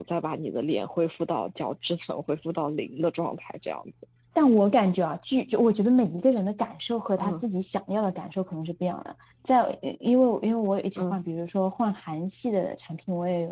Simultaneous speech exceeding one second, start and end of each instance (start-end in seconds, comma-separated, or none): none